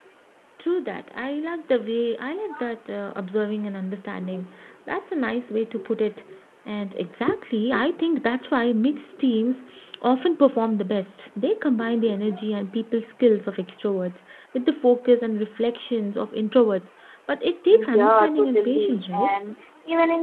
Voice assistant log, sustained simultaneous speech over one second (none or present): present